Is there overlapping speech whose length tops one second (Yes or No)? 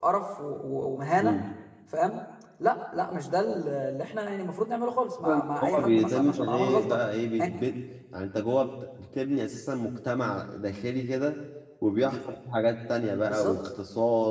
Yes